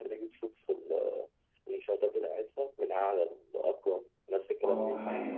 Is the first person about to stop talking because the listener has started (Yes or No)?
Yes